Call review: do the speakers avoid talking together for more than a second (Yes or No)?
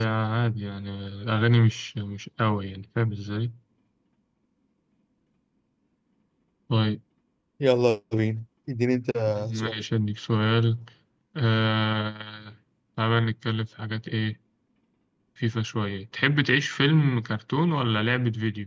Yes